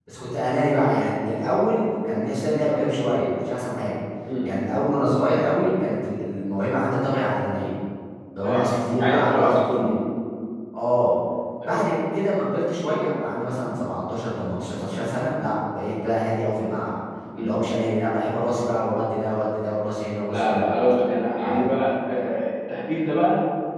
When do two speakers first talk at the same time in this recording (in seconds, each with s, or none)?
8.4 s